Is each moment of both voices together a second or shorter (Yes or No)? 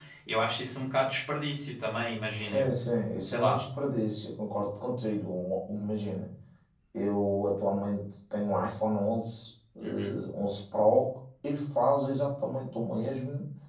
Yes